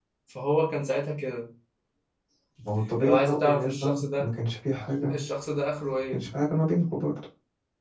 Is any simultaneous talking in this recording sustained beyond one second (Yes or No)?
Yes